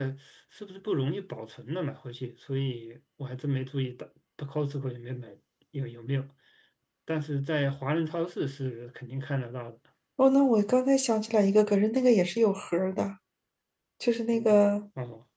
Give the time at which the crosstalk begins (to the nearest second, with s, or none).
none